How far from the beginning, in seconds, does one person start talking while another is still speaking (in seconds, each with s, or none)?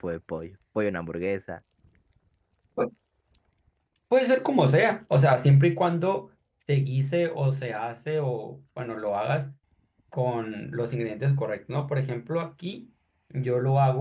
none